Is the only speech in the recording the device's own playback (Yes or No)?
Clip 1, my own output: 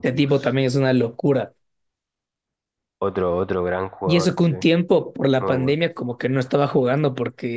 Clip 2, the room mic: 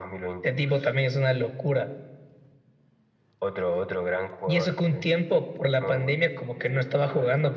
No